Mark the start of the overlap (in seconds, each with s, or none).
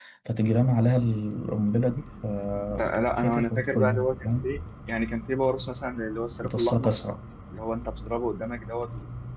2.7 s